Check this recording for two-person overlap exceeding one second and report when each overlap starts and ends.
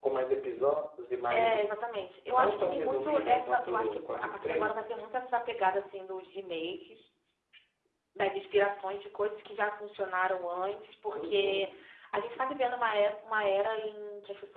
2.3-4.7

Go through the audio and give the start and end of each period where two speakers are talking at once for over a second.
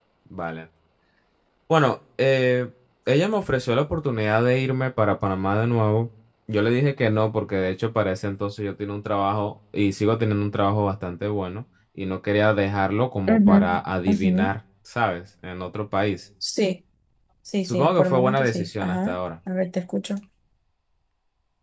17.6-19.2

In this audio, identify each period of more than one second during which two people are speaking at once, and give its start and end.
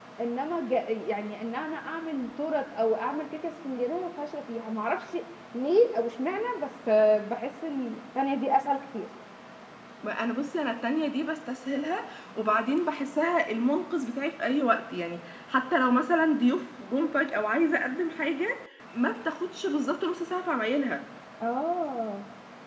none

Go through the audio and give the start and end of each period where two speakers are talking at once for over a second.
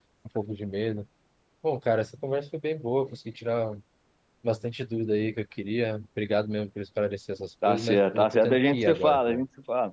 7.7-9.4

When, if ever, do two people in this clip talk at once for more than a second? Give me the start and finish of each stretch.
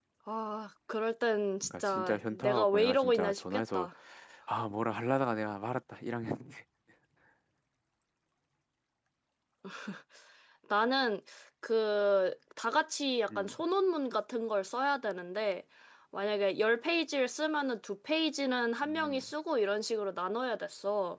1.6-3.9

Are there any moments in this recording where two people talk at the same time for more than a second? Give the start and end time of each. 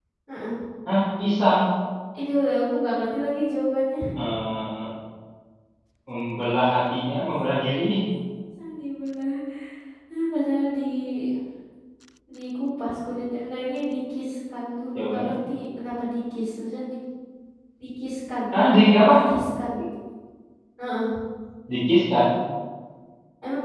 none

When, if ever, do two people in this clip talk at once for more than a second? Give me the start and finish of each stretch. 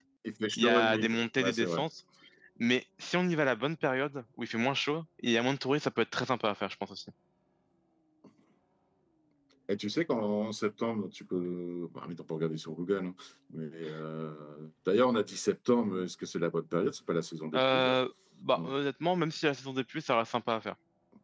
0.6-1.8

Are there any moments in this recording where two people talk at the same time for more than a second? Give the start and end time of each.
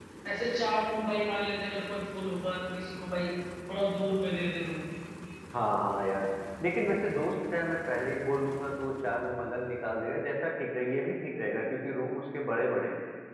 none

